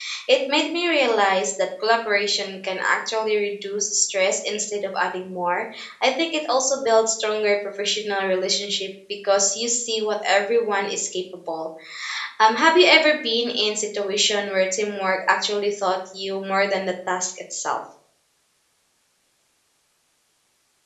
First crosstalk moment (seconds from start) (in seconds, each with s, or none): none